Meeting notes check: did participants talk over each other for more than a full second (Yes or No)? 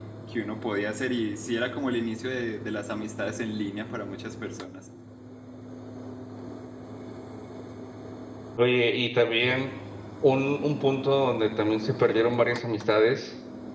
No